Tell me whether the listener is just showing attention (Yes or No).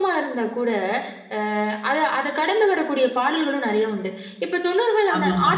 Yes